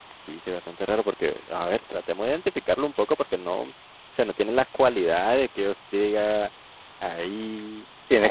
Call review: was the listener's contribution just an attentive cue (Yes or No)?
No